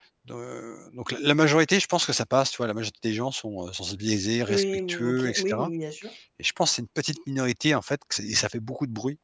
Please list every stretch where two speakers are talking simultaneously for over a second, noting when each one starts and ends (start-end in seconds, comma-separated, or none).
4.5-5.7